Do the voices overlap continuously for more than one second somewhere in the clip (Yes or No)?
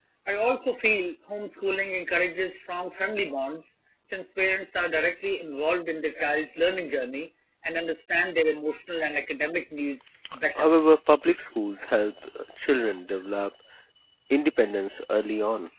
No